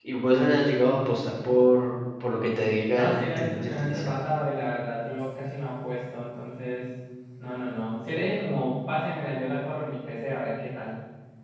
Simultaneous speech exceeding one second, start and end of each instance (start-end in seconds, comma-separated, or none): 2.9-4.1